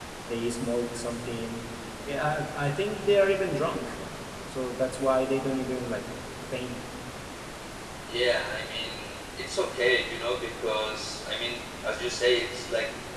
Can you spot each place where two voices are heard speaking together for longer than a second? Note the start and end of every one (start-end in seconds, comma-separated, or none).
none